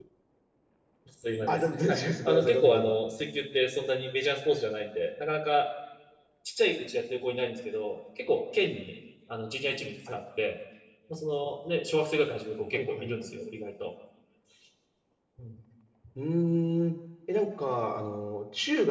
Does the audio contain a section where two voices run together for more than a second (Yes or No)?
Yes